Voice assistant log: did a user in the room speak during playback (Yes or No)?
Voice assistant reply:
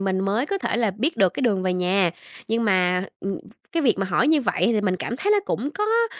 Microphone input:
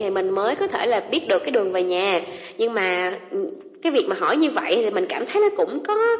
No